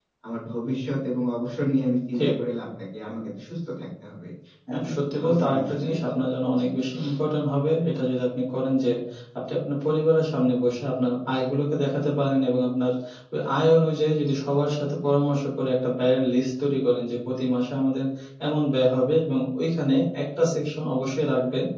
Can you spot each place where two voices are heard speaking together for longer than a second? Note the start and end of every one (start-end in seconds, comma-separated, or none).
4.7-6.2